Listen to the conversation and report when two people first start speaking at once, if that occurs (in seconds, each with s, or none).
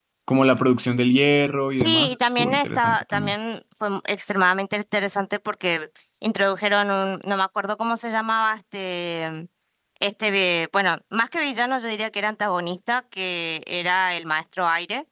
1.8 s